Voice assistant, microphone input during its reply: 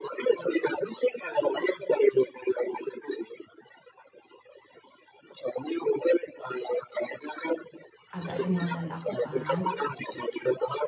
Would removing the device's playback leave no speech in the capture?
No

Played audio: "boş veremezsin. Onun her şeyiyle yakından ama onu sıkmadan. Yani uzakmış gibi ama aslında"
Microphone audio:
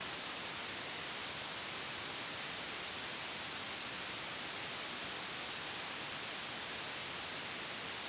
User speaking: No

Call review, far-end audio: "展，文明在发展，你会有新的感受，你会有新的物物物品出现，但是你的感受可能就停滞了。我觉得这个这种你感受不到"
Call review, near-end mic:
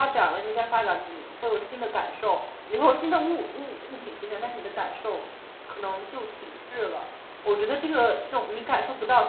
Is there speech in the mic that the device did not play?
No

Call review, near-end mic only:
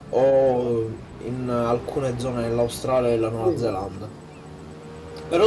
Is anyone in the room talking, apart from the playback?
Yes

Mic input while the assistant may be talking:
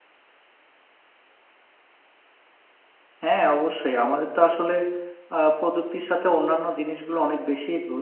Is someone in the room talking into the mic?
Yes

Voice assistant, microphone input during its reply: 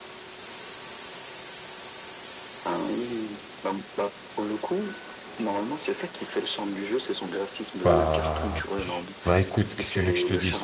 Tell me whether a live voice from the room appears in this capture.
Yes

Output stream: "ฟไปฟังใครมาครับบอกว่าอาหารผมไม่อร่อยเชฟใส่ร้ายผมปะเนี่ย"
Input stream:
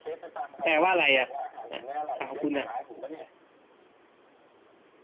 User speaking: Yes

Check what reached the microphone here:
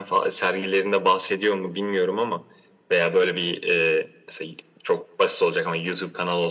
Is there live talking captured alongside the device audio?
No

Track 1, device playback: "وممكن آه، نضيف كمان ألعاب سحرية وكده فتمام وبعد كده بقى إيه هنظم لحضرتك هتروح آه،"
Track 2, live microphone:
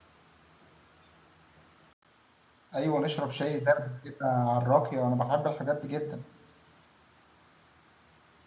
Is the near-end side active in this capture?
Yes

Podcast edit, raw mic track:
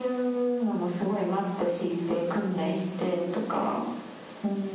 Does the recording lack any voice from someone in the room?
Yes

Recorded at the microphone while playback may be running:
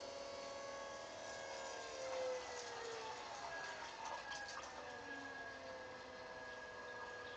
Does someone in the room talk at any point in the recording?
No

